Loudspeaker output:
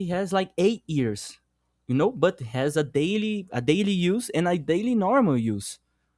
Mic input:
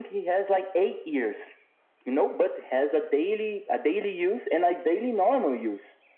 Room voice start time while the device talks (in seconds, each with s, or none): none